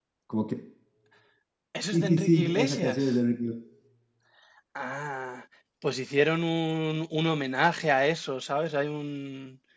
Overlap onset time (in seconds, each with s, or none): 1.9 s